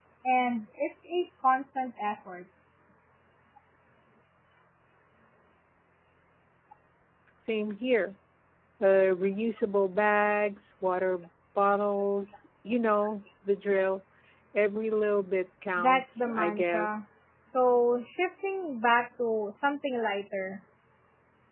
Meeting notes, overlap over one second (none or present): present